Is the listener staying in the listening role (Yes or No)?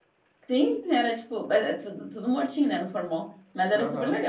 No